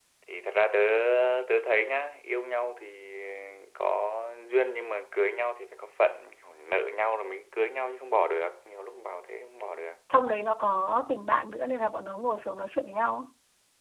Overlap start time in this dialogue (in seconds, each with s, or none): none